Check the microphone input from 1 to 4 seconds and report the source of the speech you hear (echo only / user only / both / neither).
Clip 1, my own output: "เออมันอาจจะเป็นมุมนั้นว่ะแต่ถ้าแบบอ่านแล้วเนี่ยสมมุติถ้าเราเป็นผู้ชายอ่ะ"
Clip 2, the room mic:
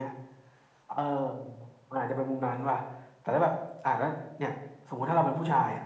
echo only